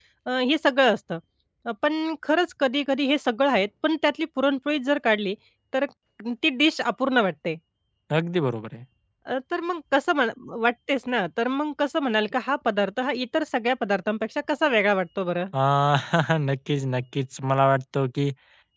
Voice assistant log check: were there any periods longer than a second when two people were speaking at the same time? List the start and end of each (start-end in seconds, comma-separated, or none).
none